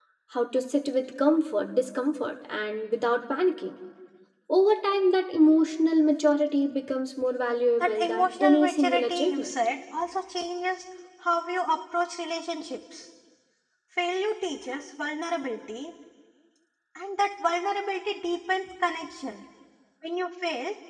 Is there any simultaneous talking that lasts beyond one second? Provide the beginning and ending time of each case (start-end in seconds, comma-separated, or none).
7.8-9.5